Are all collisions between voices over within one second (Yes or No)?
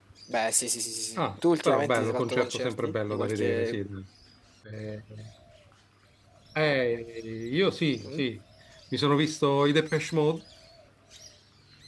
No